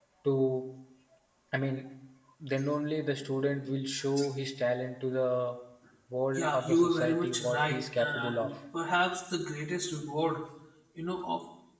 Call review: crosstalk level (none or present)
present